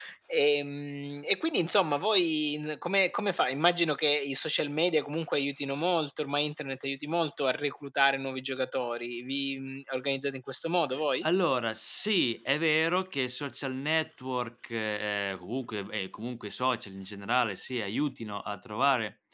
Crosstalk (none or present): none